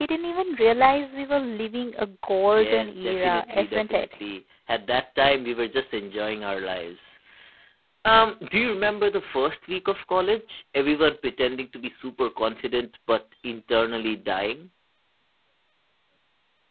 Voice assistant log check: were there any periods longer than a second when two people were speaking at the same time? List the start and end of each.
2.5-4.0

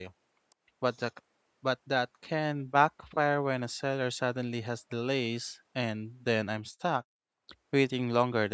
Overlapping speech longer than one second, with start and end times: none

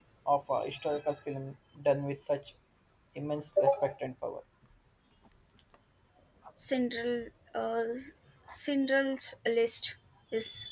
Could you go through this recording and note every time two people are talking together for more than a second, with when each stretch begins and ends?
none

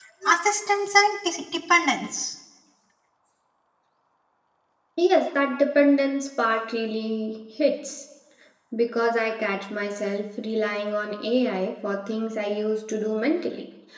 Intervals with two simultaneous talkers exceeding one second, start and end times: none

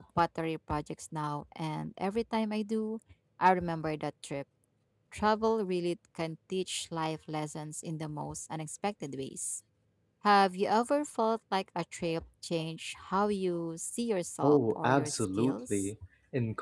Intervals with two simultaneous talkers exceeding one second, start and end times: 14.4-15.9

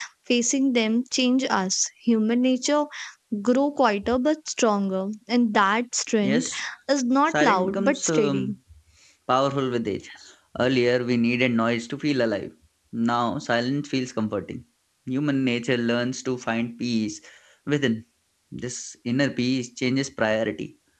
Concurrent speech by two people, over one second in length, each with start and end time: 7.3-8.5

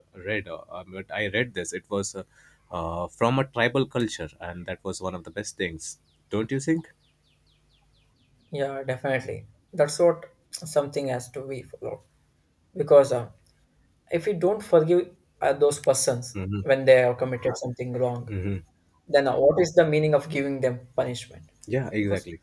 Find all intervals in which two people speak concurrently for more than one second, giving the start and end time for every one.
none

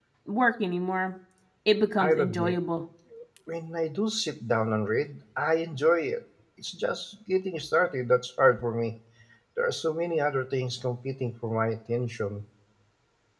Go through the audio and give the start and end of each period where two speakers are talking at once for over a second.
none

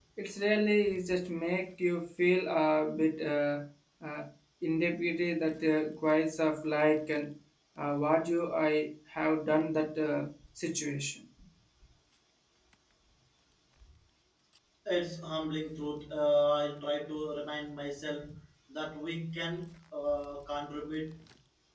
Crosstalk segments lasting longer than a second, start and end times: none

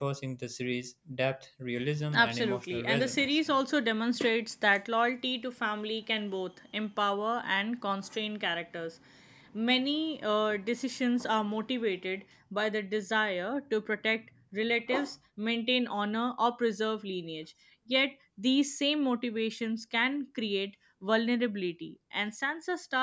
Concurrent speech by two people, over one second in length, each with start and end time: 2.1-3.4

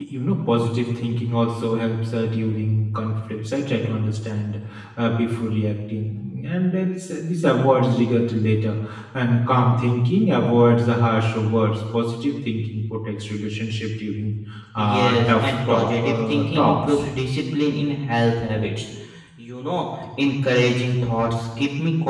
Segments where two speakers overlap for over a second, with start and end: 14.8-17.0

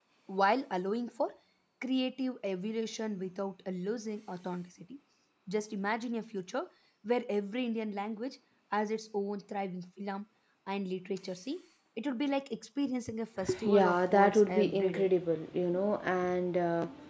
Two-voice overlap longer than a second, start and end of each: 13.6-15.1

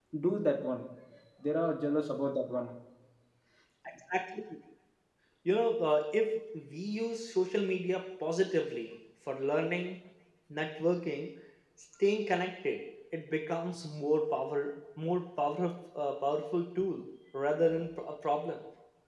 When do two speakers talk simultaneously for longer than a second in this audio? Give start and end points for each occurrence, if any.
none

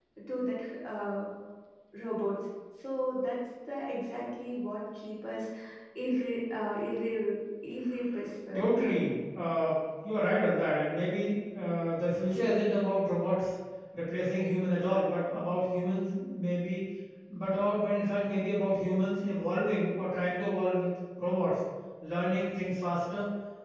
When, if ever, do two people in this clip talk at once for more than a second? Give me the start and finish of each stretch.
none

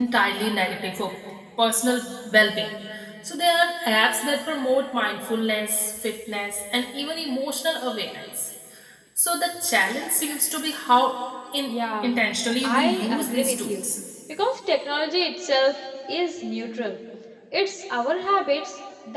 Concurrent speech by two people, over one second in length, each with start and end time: 12.6-13.9

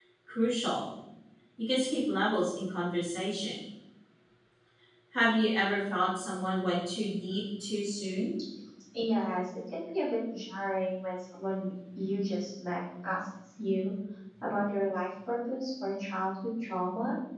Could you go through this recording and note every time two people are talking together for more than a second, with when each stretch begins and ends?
none

